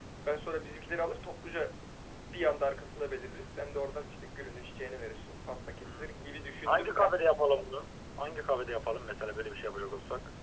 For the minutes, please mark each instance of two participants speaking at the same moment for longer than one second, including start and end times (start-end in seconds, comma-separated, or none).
5.8-7.2